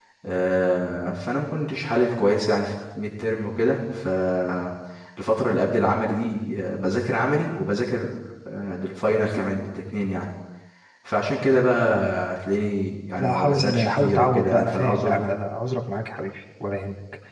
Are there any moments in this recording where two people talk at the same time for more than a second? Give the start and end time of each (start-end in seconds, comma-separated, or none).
13.2-15.2